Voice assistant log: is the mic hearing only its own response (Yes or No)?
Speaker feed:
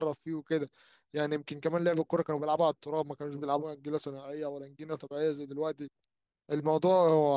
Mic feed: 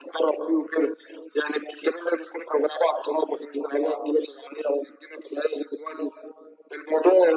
Yes